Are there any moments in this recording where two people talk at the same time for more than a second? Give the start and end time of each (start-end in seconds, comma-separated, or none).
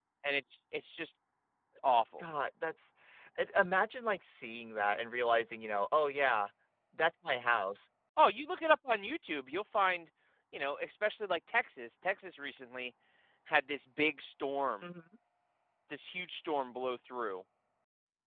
none